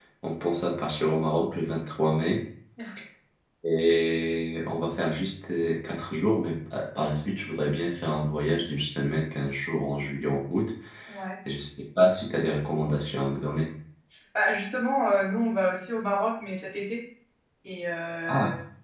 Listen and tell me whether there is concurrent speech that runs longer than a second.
No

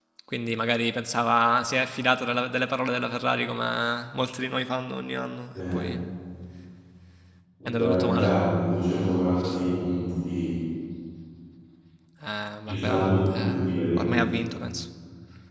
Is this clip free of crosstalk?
No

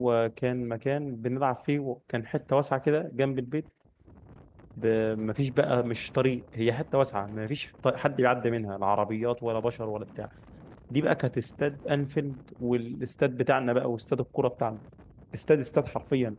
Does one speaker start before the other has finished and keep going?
No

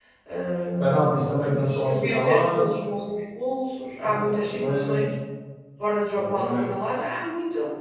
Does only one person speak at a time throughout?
No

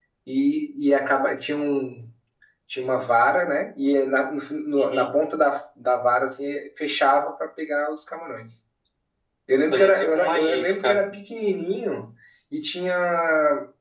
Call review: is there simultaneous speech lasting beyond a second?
Yes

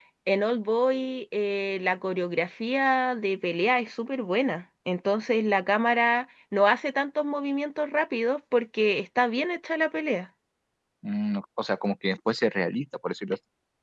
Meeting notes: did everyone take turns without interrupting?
Yes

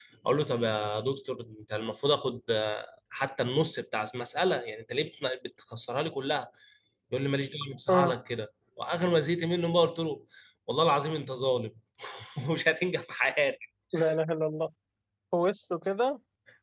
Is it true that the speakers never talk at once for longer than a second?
Yes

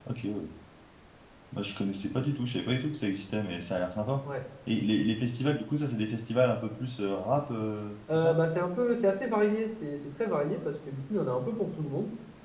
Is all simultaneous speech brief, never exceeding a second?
Yes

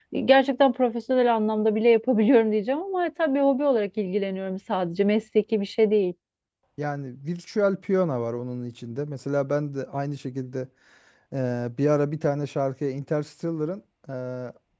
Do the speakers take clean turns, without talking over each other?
Yes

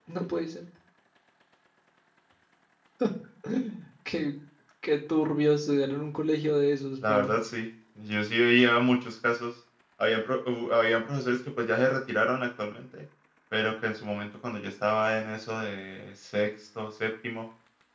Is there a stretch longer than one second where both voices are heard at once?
No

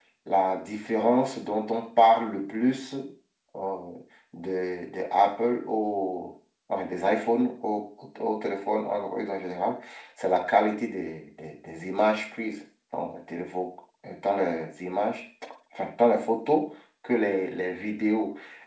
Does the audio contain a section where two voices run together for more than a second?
No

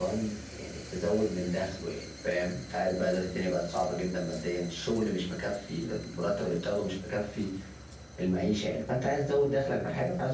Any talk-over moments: No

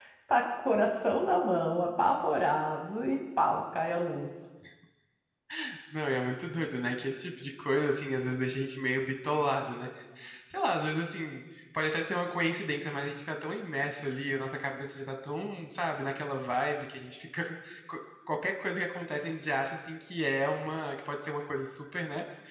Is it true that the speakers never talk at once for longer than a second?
Yes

